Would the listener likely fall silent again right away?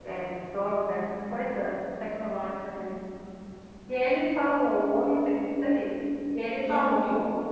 Yes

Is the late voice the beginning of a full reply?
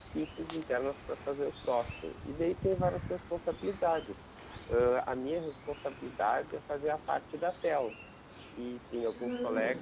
No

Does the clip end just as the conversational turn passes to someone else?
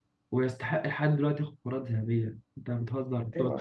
No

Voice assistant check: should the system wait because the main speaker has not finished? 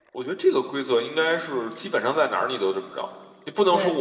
Yes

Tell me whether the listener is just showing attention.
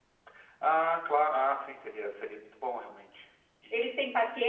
No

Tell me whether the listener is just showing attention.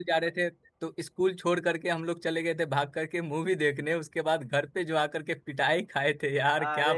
No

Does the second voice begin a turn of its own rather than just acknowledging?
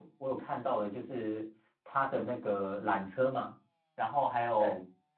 No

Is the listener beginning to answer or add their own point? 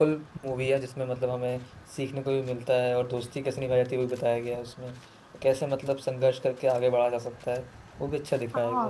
Yes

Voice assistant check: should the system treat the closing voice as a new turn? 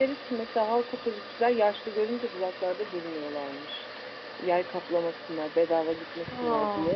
No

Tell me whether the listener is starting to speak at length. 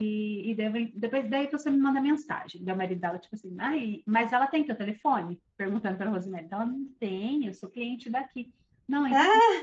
No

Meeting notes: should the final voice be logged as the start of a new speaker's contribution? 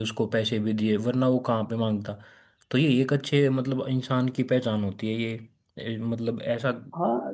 Yes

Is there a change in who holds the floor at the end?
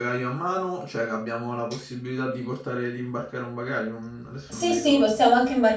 Yes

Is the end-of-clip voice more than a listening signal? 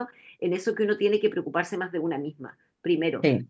No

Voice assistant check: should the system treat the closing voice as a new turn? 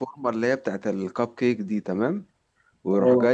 No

